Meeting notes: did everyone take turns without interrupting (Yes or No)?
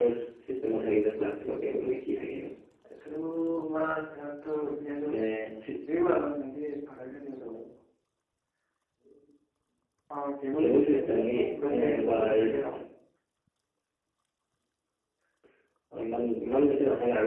No